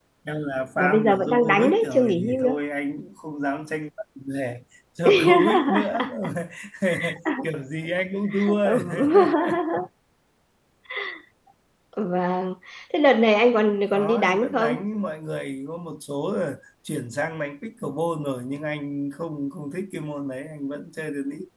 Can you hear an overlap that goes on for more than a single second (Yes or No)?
Yes